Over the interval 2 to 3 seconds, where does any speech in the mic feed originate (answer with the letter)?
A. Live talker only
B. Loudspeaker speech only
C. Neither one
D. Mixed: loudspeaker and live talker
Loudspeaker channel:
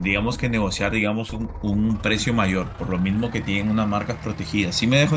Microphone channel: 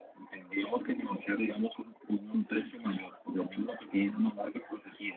B